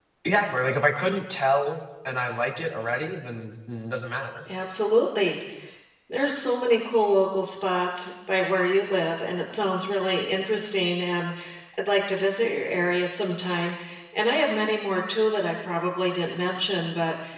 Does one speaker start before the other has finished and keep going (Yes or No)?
No